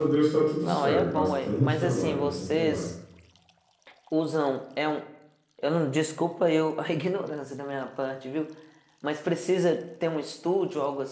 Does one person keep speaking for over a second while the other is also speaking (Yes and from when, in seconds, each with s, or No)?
Yes, from 0.6 s